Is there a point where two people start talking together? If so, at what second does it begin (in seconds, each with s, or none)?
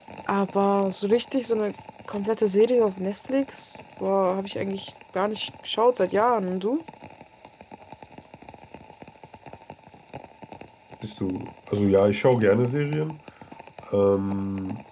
none